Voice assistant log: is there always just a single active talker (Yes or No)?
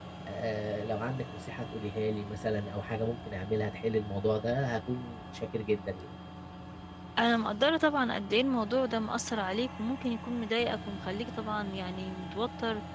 Yes